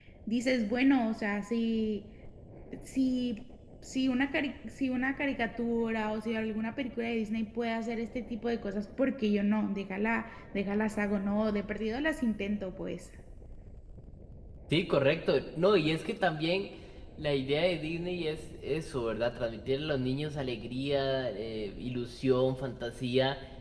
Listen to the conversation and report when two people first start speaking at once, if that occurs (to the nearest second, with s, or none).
none